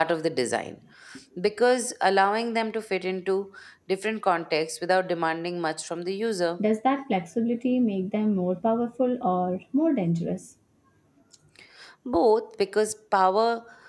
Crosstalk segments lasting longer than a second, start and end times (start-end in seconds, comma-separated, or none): none